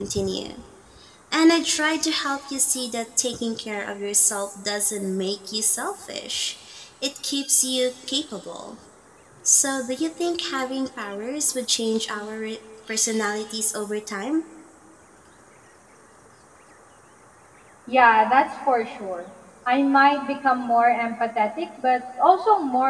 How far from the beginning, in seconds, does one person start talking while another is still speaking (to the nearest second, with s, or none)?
none